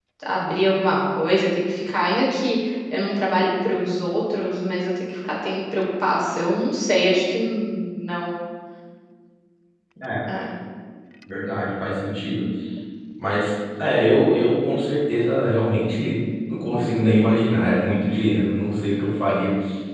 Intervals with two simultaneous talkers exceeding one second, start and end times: none

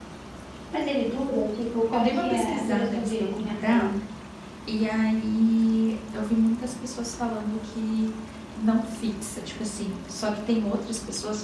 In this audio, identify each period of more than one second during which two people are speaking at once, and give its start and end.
1.9-3.9

